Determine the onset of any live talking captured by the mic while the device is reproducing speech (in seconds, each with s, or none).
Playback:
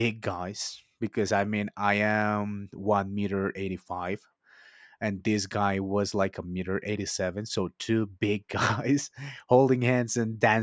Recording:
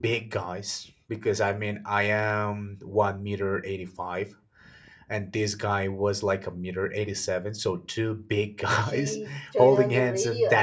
8.8 s